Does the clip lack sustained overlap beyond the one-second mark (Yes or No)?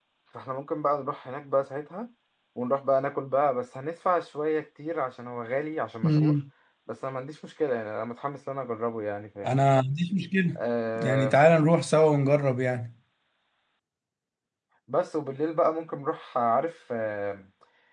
Yes